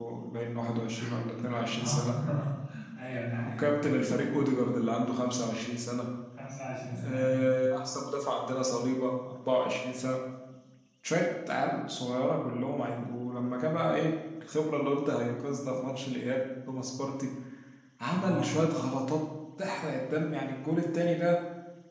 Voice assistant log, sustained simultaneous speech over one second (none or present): none